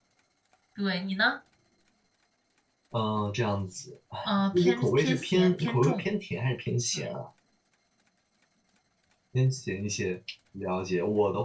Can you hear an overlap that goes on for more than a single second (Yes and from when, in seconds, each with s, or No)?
Yes, from 4.5 s